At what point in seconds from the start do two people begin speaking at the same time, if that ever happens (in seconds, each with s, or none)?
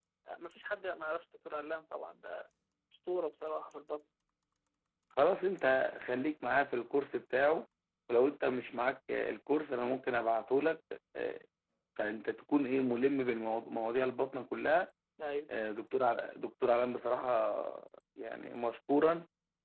none